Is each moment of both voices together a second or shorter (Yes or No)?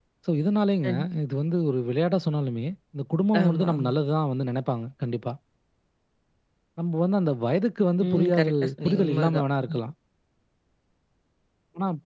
No